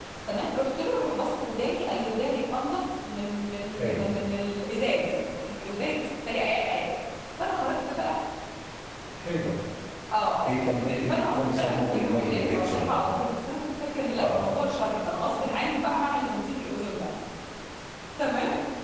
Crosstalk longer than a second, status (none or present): present